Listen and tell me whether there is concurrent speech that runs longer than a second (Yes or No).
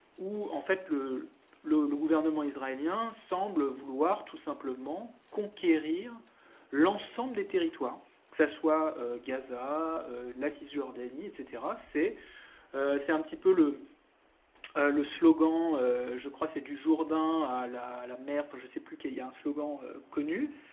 No